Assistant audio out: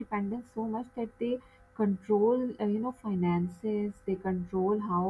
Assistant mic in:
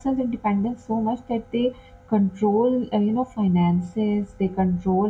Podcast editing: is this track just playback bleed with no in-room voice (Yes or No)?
Yes